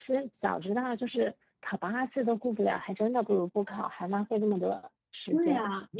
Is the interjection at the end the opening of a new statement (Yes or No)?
Yes